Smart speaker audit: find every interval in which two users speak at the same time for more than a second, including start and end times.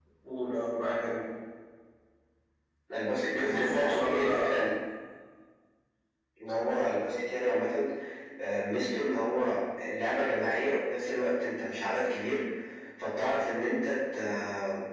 3.3-4.6

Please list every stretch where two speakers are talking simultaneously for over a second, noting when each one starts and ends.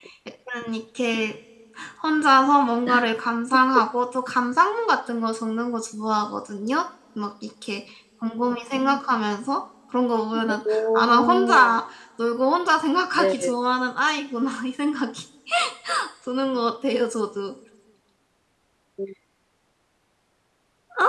10.5-11.8

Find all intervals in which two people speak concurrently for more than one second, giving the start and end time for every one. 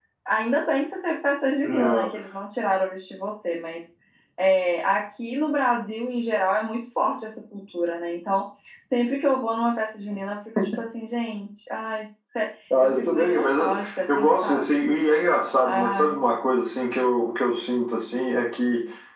12.8-14.8

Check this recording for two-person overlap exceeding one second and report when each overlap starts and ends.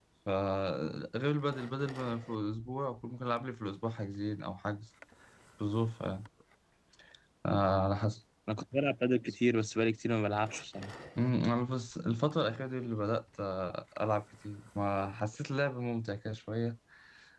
none

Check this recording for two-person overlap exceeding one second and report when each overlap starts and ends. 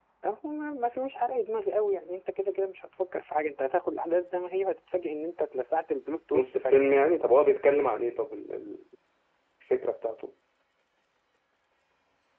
none

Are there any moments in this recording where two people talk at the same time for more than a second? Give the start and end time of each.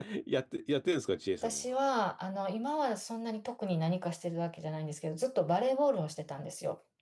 none

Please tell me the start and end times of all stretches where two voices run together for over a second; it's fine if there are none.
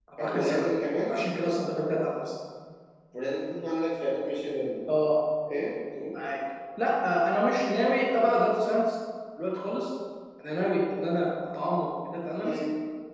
none

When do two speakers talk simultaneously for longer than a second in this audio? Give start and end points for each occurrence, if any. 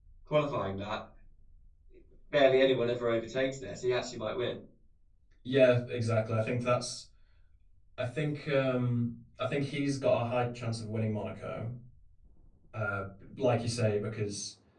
none

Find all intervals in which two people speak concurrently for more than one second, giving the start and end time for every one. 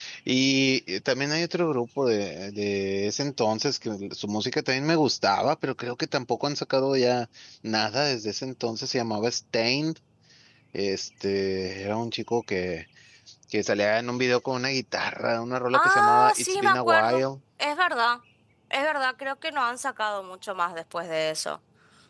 15.7-17.2

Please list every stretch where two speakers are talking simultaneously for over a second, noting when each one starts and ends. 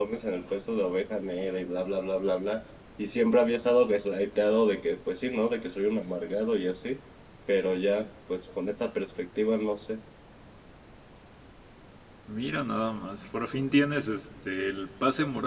none

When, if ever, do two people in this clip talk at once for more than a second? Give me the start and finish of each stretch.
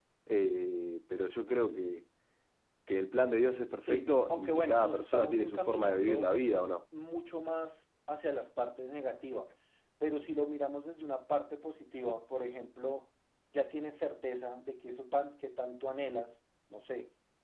3.9-6.3

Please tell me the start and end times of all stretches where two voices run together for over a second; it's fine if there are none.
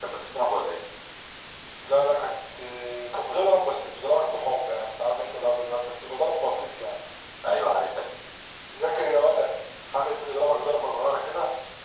none

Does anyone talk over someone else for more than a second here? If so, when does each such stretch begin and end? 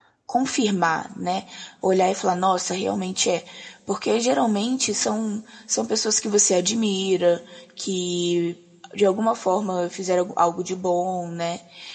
none

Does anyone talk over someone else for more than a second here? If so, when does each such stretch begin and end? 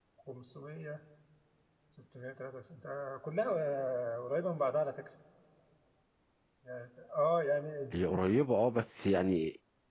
none

